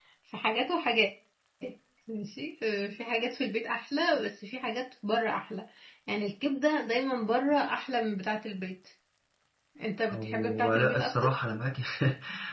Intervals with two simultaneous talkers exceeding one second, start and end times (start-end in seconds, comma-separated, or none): 10.1-11.3